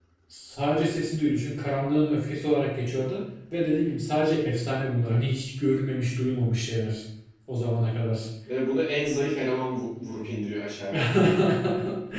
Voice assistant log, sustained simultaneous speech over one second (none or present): none